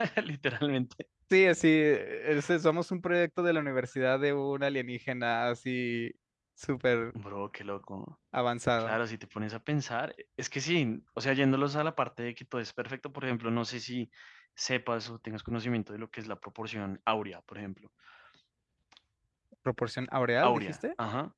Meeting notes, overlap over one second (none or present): none